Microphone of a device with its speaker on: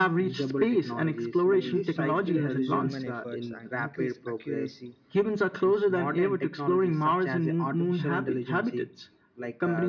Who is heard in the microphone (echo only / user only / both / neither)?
both